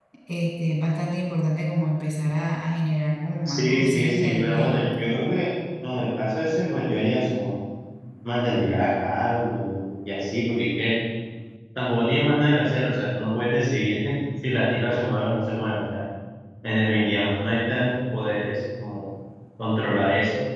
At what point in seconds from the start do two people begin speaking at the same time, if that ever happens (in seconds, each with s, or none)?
3.4 s